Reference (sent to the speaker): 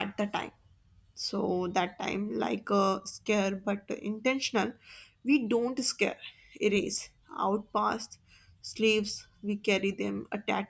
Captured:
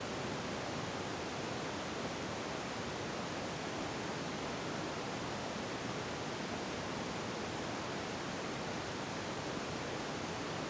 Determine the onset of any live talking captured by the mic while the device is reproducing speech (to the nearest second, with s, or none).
none